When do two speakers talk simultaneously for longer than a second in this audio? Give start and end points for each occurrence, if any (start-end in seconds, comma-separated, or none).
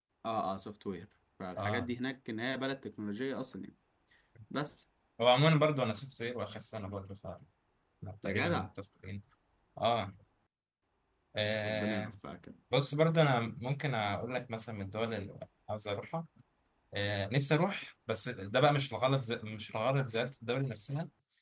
none